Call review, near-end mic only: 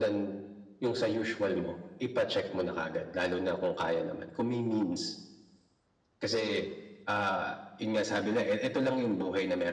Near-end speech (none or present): none